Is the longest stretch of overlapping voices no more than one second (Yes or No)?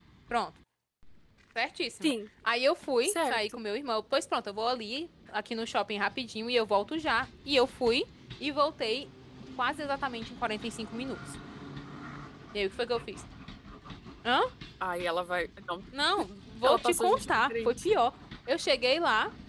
No